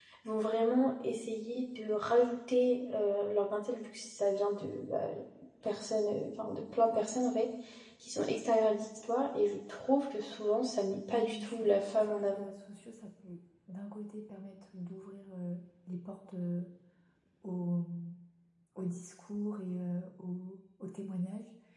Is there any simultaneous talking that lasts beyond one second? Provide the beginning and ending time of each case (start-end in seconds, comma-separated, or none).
11.1-12.5